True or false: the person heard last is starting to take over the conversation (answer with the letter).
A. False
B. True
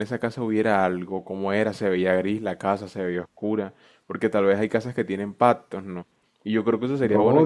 B